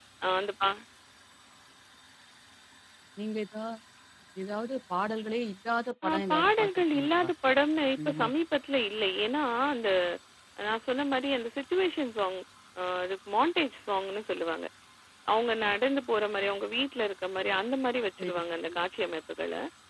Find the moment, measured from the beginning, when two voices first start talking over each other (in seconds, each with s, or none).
6.1 s